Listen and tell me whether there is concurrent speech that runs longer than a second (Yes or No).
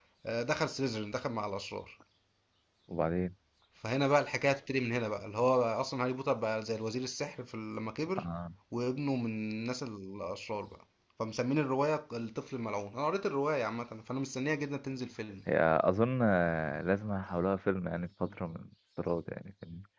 No